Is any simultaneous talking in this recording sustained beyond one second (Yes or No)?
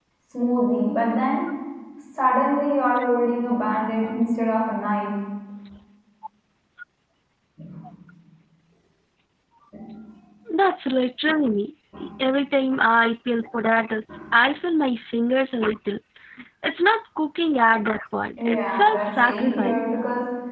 Yes